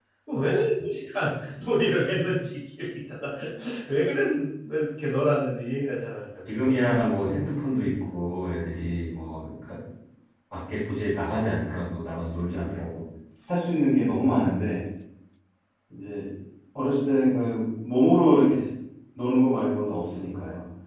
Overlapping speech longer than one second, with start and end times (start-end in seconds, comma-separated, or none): none